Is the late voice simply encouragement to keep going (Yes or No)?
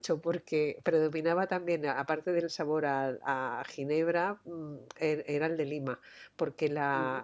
Yes